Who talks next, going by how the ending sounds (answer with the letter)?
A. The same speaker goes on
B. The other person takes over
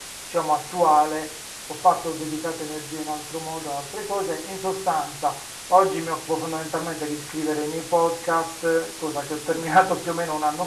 A